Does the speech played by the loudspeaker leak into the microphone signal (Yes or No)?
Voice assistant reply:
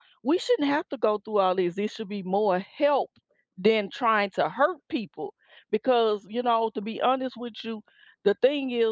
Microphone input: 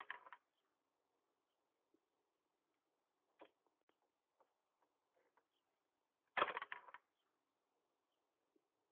No